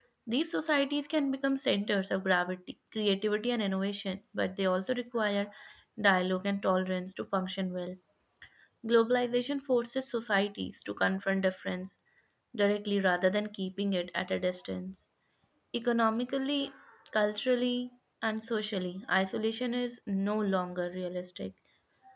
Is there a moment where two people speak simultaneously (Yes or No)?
No